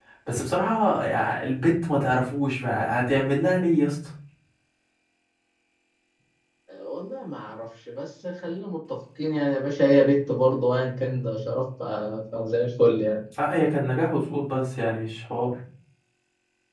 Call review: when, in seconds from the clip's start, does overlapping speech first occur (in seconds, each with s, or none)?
none